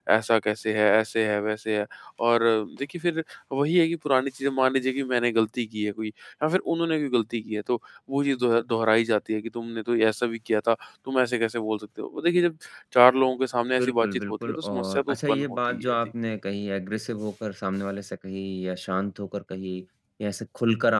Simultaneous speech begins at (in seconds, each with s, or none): 13.8 s